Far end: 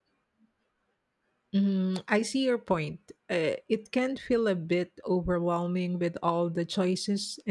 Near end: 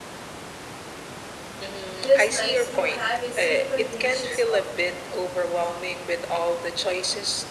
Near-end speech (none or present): present